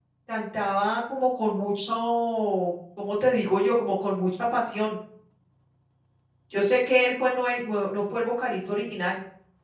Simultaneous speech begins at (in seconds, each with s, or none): none